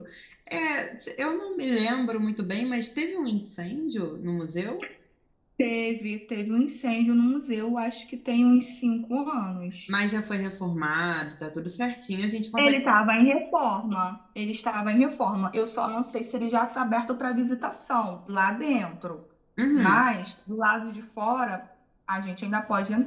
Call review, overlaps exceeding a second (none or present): none